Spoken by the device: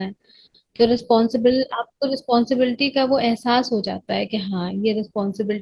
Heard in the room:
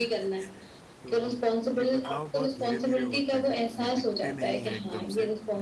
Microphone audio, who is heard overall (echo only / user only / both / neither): both